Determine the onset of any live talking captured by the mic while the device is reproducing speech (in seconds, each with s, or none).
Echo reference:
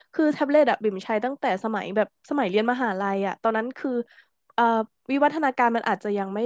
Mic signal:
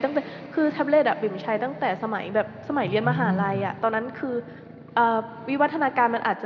2.8 s